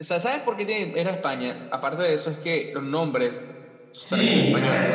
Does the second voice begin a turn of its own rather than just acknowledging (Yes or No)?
Yes